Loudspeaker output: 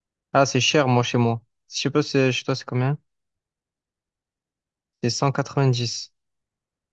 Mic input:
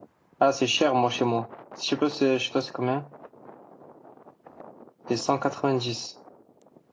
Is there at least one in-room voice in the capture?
No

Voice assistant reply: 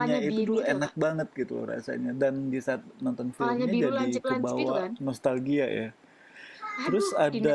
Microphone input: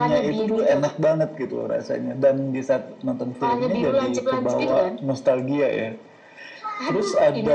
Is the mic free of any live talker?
Yes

